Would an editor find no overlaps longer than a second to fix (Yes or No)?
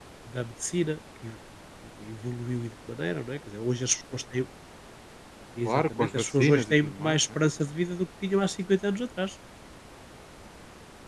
No